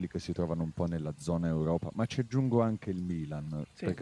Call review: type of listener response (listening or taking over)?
listening